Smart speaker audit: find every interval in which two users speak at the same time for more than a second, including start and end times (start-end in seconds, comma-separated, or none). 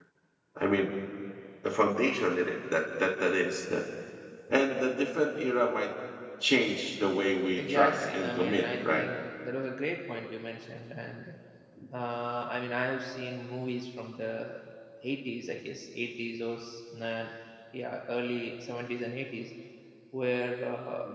7.6-9.1